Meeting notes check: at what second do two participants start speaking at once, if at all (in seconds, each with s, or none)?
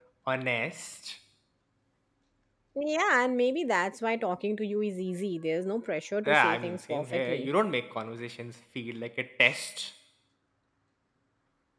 6.2 s